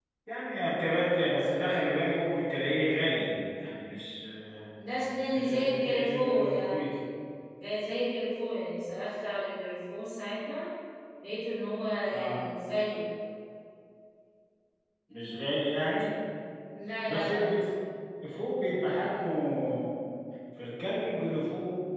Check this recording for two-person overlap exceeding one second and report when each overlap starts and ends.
5.3-6.9

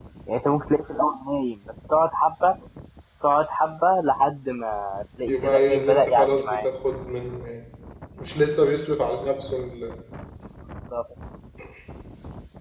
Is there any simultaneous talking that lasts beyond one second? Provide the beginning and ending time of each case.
5.3-6.7

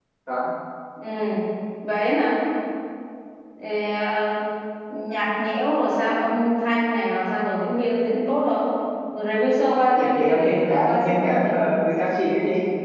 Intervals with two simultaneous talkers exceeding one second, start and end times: 9.9-12.1

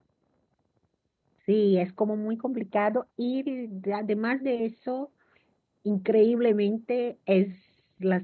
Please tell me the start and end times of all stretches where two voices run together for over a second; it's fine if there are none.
none

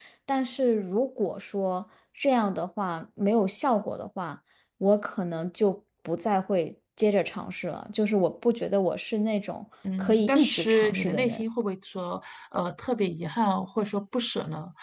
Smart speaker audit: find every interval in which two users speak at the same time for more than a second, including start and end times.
10.0-11.4

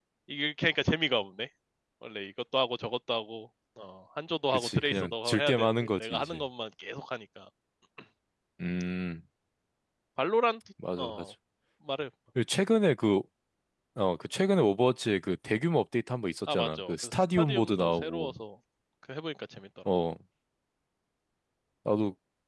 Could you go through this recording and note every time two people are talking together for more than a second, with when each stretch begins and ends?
4.5-6.4, 16.5-18.3

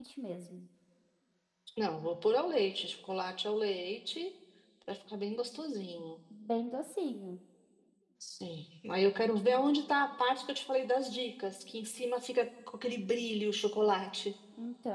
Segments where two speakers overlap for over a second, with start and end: none

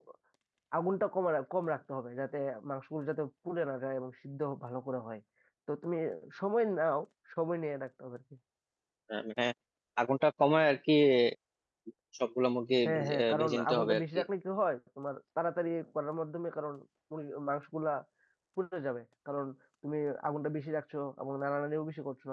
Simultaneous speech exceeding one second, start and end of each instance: 12.8-14.2

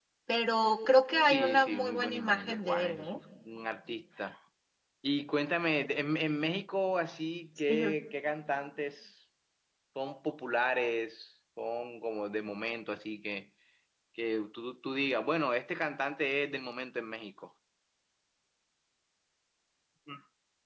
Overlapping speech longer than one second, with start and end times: 1.2-3.1

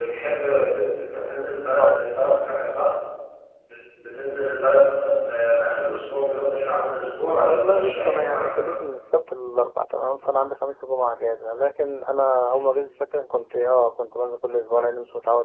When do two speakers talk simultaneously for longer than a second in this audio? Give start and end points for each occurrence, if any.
7.3-8.8

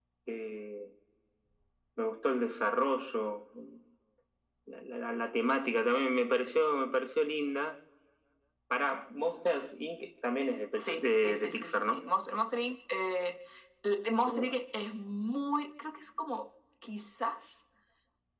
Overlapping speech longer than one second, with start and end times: 10.7-12.0

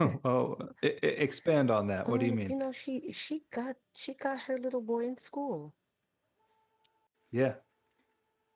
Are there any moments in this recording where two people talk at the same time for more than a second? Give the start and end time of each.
none

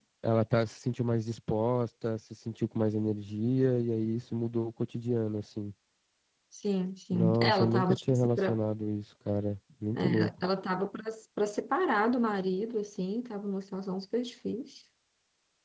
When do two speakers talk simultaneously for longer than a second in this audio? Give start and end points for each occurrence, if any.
7.1-8.6

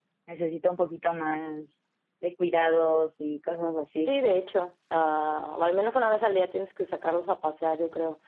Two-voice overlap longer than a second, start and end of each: none

